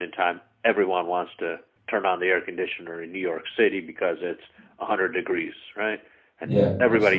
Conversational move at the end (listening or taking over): listening